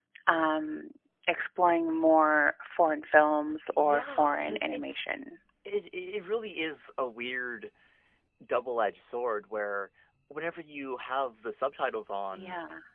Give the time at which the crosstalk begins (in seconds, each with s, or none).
3.7 s